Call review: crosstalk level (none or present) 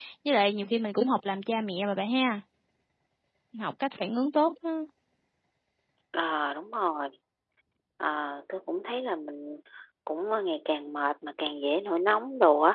none